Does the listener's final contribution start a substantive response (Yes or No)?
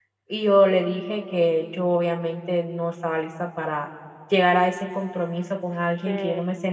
No